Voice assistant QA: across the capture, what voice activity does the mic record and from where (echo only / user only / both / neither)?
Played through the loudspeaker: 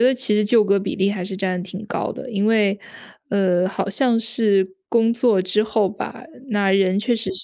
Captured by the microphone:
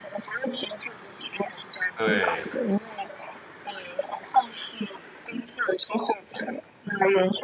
both